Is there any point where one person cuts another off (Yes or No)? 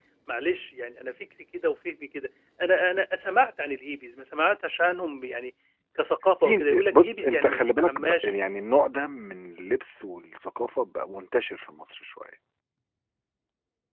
Yes